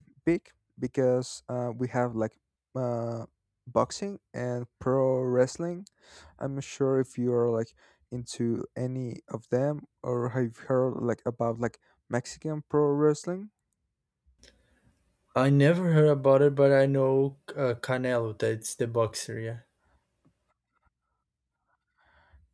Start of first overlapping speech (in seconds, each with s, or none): none